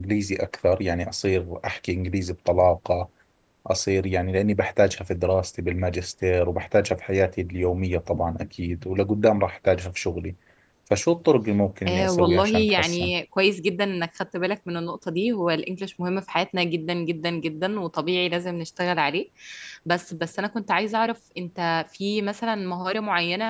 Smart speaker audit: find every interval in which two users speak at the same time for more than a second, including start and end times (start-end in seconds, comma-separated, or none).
11.9-13.1